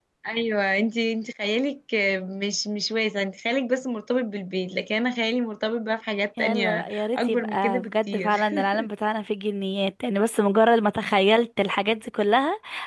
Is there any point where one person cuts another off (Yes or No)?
Yes